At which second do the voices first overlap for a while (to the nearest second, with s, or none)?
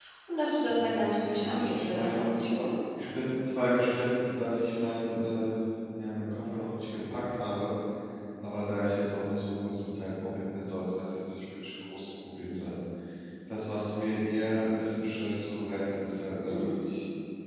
1 s